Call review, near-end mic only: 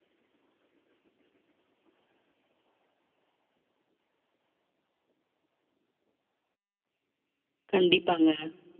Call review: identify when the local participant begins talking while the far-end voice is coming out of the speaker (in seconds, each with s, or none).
7.7 s